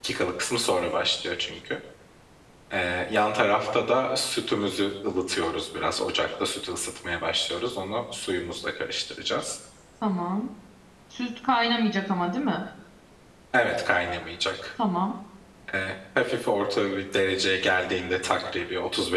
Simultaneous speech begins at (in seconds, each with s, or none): none